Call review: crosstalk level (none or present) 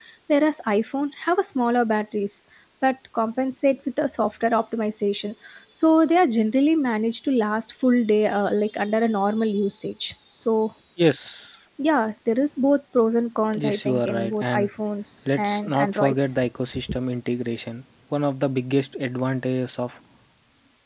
present